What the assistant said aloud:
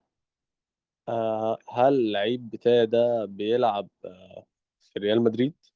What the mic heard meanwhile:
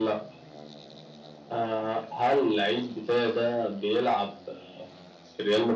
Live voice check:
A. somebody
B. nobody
B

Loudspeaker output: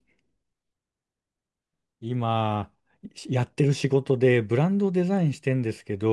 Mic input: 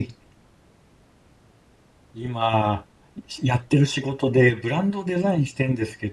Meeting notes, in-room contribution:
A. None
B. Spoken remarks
A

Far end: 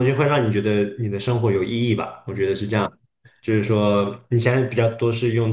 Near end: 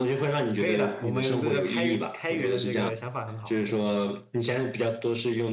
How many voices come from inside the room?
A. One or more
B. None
A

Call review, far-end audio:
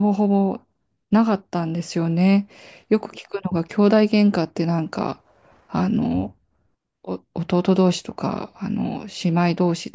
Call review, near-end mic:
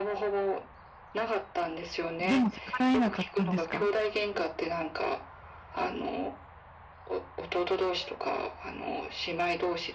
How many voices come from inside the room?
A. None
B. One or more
B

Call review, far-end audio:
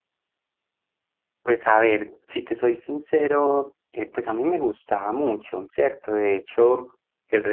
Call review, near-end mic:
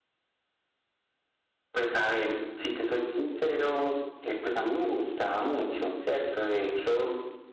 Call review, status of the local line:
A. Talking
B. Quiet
B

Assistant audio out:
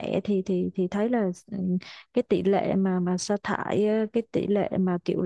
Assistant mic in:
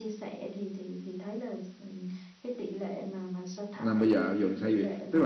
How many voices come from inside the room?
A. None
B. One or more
B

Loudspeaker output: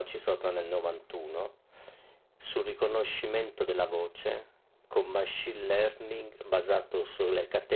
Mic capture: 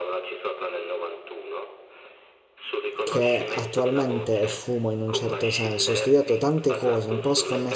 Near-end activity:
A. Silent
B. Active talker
B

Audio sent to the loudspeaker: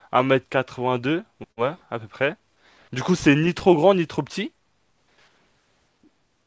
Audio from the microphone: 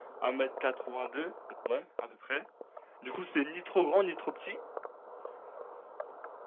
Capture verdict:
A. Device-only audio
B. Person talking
A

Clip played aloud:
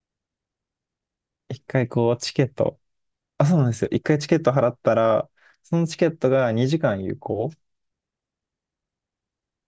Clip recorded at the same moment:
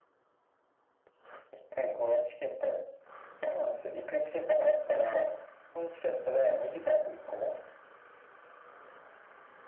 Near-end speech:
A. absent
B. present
A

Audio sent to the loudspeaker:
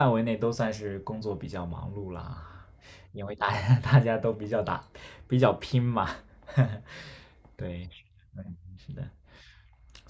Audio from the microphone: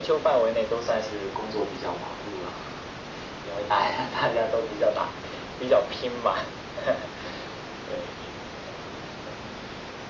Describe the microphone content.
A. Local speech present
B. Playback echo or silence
B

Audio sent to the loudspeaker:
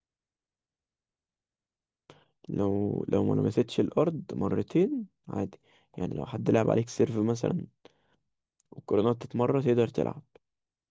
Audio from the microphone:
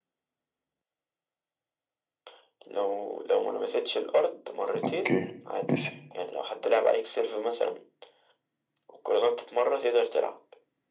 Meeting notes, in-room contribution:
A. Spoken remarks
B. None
A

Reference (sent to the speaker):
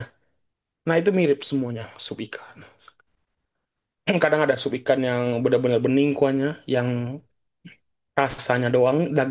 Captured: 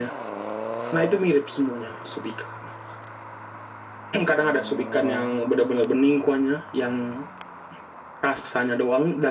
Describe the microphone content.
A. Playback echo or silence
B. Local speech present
A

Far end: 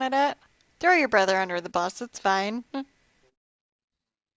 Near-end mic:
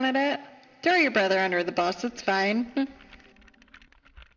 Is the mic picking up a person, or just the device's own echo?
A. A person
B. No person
B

